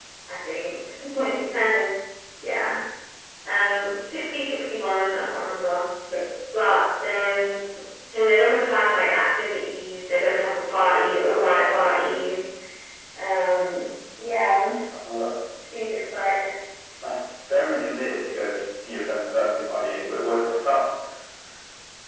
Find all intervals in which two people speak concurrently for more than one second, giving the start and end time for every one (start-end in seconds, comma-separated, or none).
none